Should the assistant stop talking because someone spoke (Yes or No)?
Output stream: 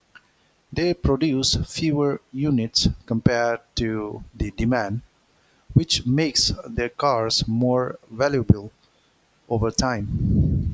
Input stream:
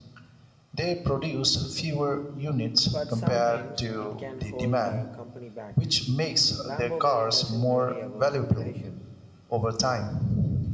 Yes